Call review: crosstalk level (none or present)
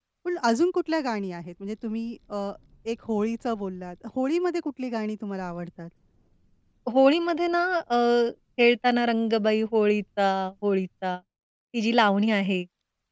none